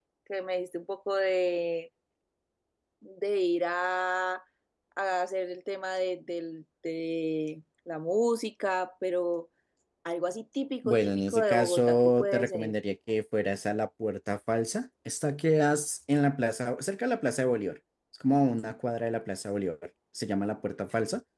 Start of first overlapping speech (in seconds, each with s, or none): 10.8 s